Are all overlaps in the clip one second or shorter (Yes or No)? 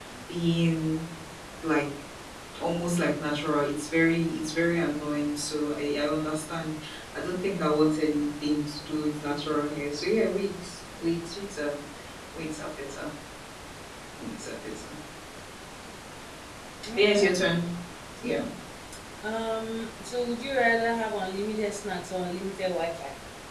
Yes